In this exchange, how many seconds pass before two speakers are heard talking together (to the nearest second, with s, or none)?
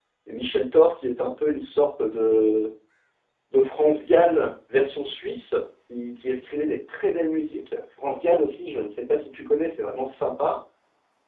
none